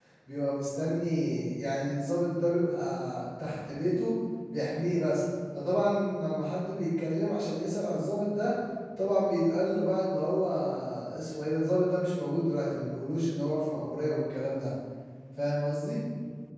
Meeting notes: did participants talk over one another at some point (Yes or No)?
No